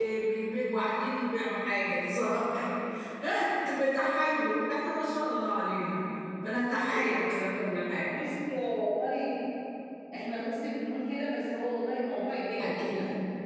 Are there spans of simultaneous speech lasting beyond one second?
No

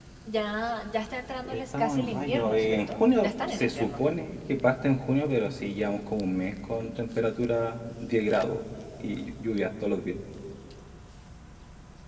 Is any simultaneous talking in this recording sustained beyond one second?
Yes, from 1.4 s

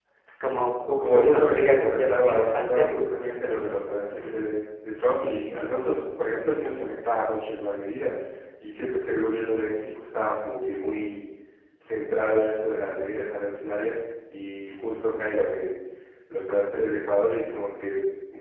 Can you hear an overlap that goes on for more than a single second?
Yes, from 1.0 s

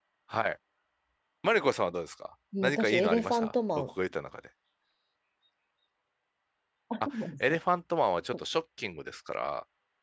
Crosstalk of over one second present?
Yes, from 2.6 s

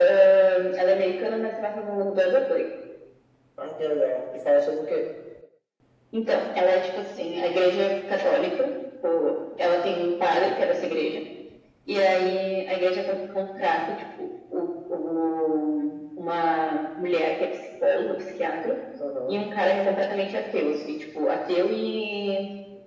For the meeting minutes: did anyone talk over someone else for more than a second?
No

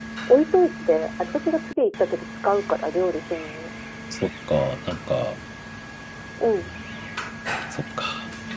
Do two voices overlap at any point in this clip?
No

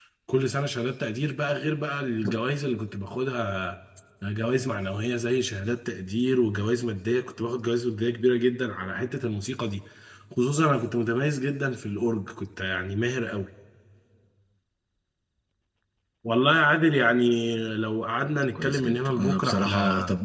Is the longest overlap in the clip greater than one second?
Yes, from 18.6 s

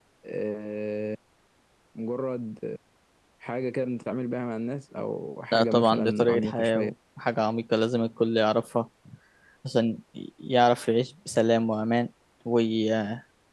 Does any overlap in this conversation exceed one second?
Yes, from 5.5 s

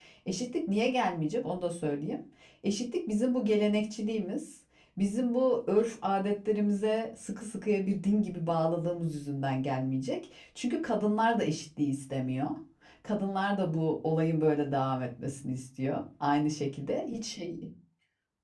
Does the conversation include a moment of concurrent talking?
No

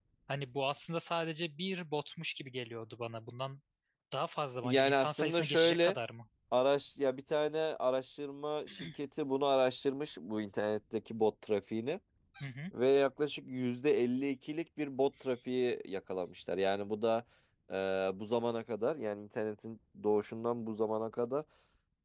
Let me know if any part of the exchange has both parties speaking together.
Yes, from 4.6 s

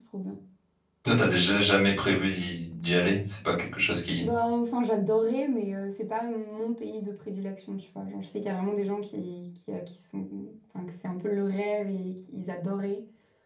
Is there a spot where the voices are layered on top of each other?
No

